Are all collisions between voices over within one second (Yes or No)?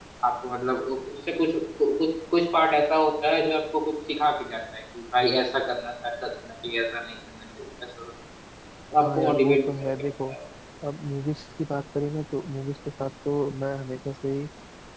No